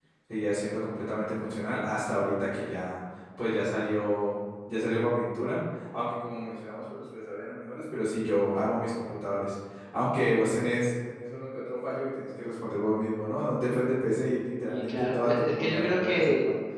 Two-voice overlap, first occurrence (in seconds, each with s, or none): 14.6 s